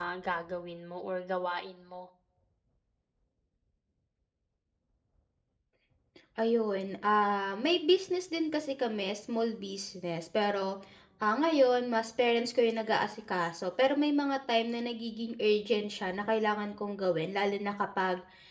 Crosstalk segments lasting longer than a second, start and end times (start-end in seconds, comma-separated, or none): none